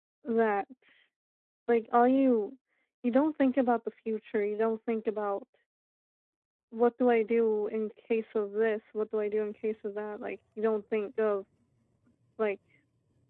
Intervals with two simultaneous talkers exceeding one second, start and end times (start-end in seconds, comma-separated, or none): none